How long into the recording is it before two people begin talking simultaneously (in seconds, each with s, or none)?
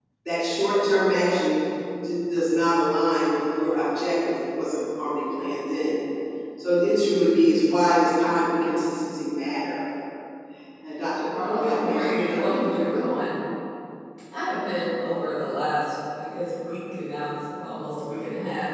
11.4 s